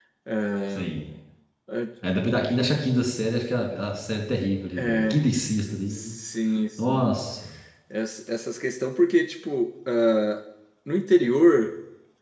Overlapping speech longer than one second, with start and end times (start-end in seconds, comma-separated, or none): none